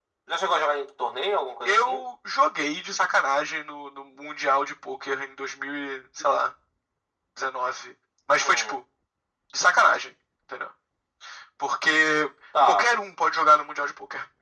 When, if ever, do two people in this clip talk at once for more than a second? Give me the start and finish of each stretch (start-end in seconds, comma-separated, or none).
none